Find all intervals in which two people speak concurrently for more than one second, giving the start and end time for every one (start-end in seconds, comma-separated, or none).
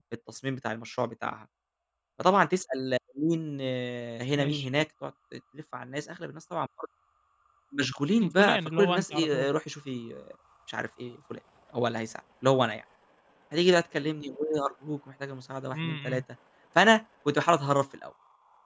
8.2-9.5